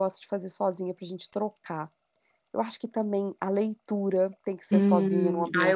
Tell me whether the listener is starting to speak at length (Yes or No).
Yes